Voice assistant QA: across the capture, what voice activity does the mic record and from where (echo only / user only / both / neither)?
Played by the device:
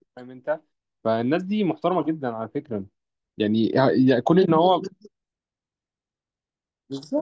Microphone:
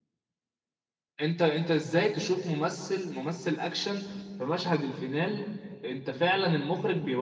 user only